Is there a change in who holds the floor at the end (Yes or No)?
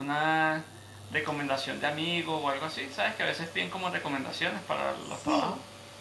Yes